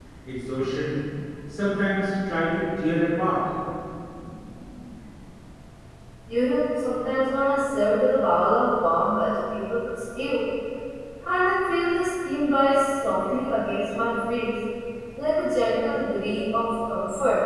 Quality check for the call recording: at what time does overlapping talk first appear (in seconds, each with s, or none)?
none